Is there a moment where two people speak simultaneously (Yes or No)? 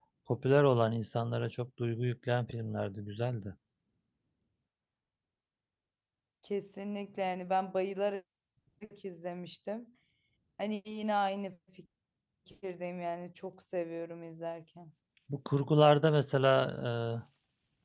No